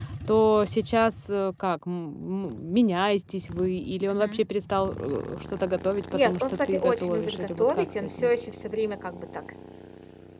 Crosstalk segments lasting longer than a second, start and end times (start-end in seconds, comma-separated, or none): 6.1-8.3